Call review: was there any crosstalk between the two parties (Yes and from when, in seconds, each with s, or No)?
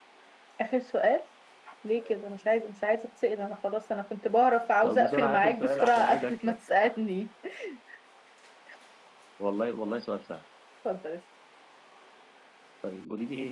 Yes, from 4.8 s